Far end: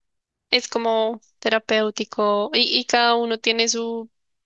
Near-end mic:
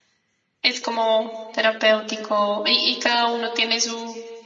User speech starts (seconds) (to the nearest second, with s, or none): none